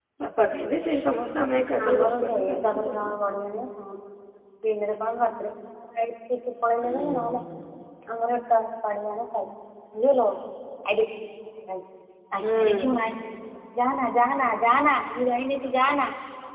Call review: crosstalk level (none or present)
present